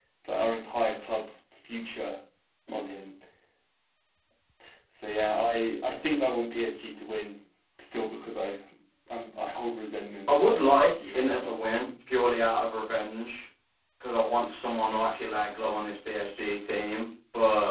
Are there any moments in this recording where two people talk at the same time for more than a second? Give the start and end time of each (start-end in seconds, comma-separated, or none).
10.3-11.5